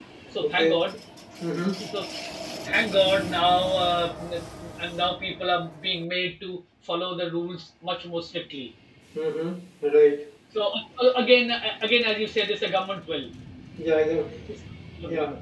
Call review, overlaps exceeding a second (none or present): none